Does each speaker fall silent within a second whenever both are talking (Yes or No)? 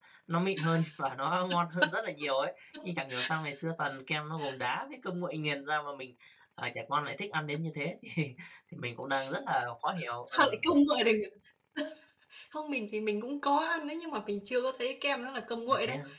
Yes